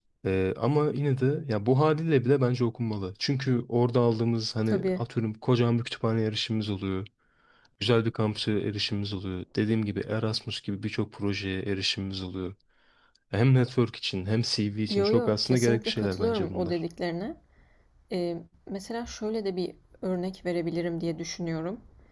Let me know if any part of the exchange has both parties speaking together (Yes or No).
Yes